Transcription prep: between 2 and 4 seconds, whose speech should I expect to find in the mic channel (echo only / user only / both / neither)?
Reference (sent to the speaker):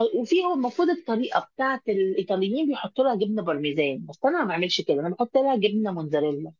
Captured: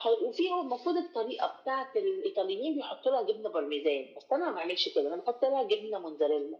echo only